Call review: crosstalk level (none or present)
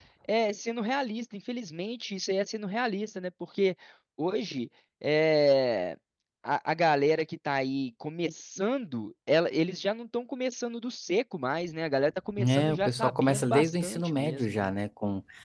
present